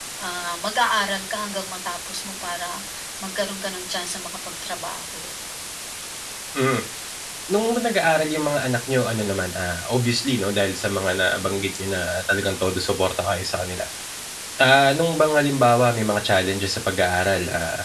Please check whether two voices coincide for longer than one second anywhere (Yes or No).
No